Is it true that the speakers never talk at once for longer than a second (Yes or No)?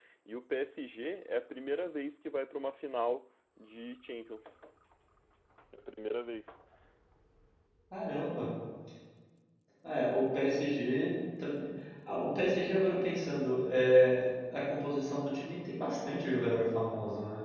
Yes